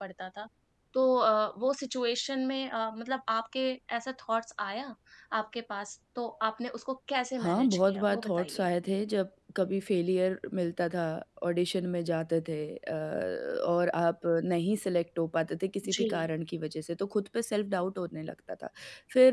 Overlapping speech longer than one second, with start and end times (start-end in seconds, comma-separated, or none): 7.4-8.7